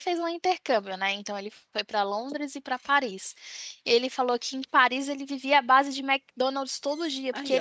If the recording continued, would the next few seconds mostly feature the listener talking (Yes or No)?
No